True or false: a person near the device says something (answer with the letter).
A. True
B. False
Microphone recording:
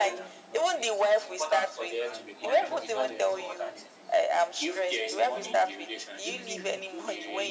A